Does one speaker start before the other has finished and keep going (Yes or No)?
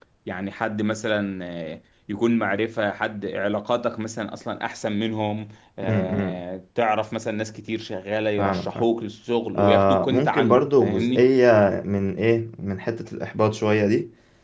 Yes